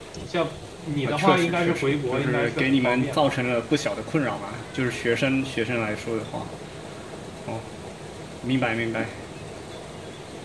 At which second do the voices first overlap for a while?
1.0 s

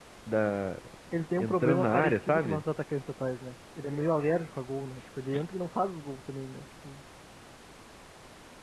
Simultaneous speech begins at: 1.4 s

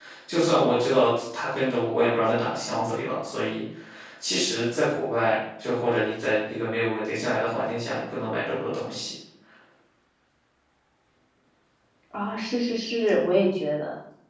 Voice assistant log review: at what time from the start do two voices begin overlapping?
none

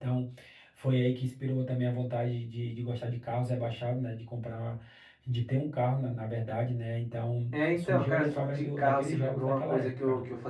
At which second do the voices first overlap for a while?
7.5 s

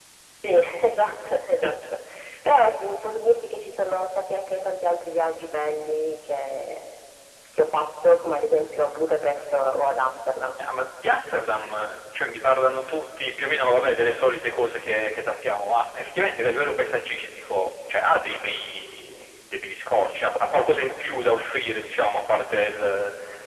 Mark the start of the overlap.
none

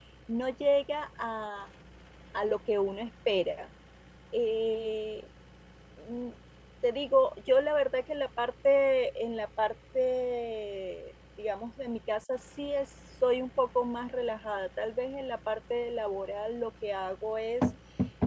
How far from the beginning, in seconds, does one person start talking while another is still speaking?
none

